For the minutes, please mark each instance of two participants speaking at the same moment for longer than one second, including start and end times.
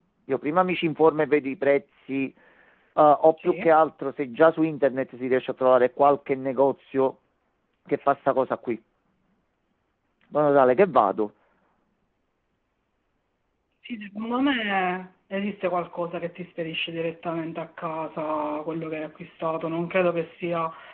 none

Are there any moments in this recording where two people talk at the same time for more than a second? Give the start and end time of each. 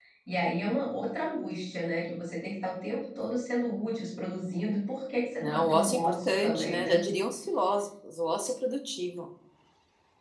5.4-7.0

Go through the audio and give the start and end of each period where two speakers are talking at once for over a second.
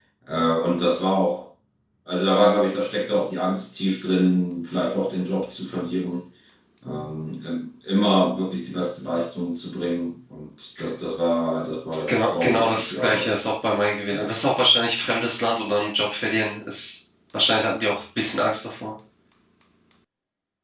11.9-13.4

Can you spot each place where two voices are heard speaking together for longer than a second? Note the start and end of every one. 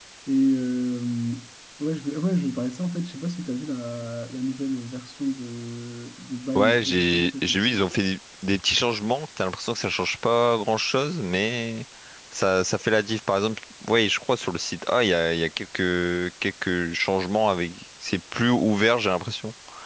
6.5-7.8

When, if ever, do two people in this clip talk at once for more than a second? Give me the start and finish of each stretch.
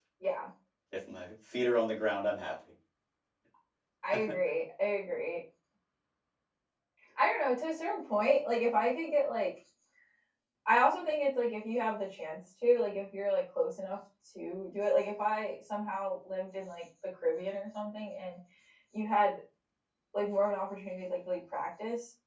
none

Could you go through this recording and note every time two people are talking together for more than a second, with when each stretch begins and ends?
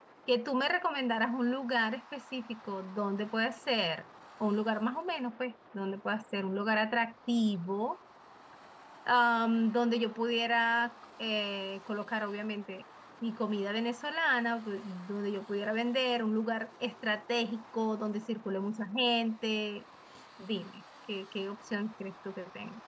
none

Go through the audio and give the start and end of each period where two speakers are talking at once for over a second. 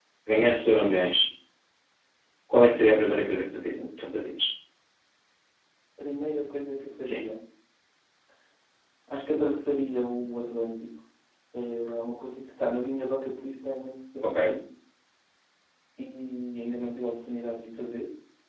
none

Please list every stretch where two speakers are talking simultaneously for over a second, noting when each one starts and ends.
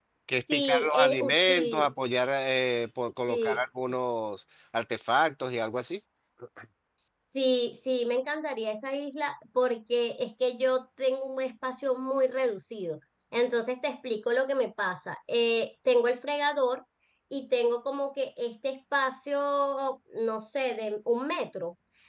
0.5-1.9

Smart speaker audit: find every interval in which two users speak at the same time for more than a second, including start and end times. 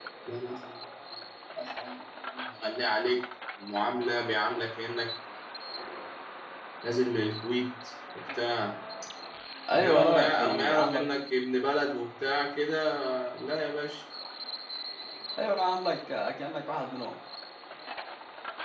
9.7-11.0

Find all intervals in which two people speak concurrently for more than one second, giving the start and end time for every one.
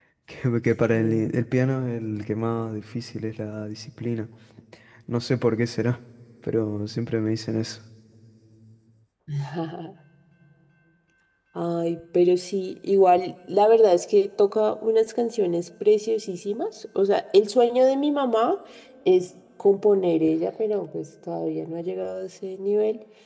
none

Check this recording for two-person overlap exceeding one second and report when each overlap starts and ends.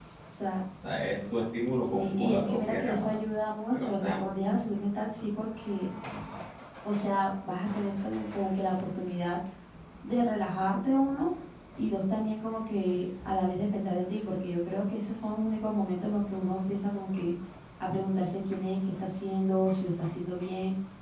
1.9-3.2

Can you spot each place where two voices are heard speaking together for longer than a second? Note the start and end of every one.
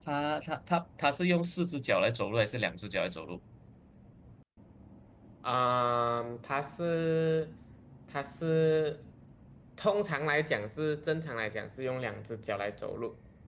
none

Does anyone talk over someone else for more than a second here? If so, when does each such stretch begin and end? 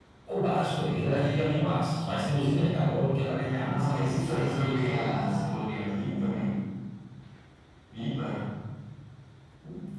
3.4-5.5

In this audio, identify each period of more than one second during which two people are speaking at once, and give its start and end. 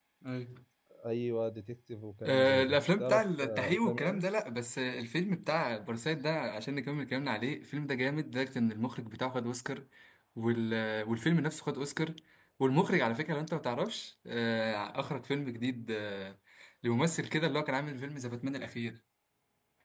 2.2-4.2

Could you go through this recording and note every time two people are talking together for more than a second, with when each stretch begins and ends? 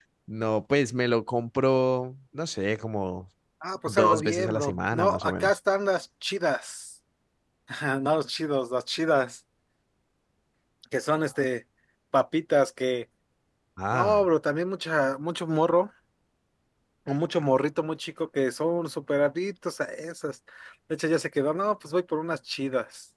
3.9-5.5

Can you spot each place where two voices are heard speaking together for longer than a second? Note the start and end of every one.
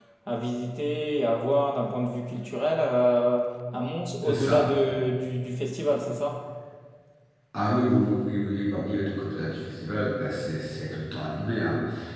none

